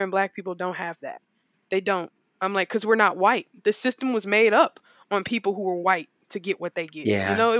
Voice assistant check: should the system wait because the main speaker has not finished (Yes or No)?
No